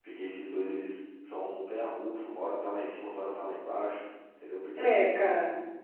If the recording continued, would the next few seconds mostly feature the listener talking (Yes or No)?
Yes